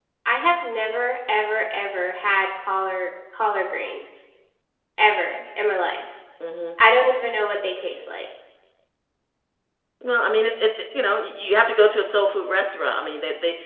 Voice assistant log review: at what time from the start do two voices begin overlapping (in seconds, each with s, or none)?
none